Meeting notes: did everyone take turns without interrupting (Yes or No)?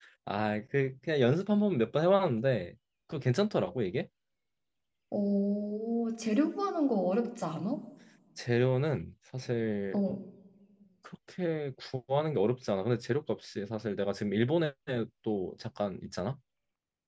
Yes